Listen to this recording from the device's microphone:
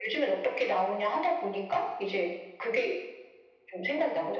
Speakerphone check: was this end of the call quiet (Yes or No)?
Yes